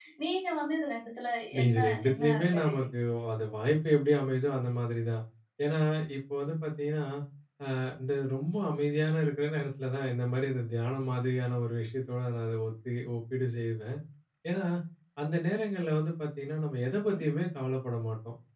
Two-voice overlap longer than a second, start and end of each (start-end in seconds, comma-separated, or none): 1.7-2.9